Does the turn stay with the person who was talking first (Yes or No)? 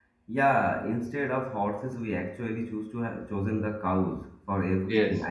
Yes